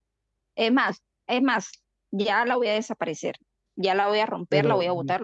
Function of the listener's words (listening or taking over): listening